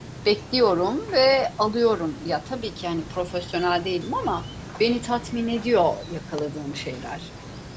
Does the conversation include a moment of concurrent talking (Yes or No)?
No